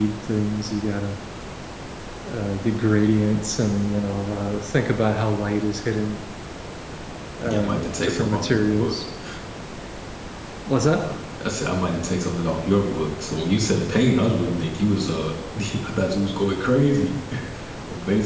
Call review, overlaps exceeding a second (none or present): present